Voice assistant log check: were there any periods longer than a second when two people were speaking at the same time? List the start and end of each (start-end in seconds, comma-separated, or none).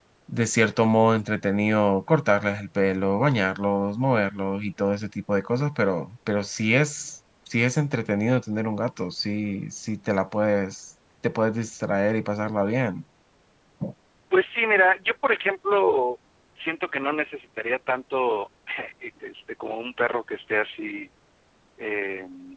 none